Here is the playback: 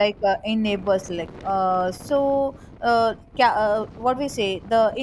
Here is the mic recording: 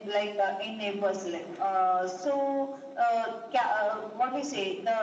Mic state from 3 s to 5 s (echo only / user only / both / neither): echo only